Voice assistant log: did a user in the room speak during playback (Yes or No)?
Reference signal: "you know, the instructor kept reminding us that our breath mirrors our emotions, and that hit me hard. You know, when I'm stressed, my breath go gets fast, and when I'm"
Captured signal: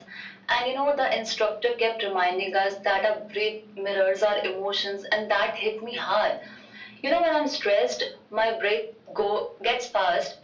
No